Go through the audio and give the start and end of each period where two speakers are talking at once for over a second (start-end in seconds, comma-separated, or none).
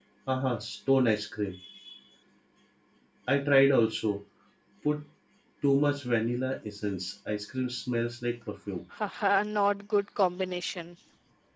none